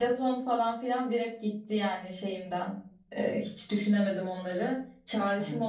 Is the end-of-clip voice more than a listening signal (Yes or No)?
No